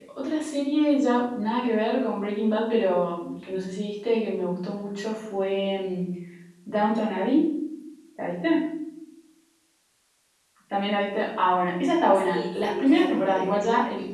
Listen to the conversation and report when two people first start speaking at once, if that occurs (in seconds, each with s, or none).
12.2 s